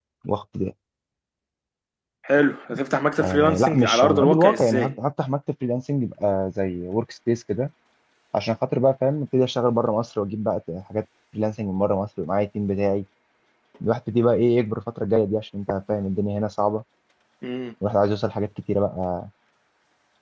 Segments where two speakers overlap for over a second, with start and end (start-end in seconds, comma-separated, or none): 3.2-4.9